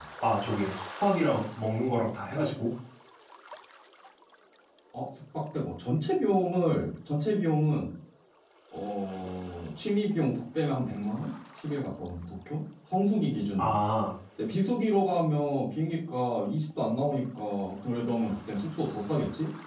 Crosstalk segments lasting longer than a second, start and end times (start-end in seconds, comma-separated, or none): none